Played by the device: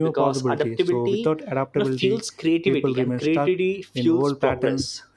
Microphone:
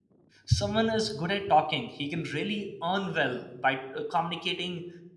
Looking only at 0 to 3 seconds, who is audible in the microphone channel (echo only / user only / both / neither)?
user only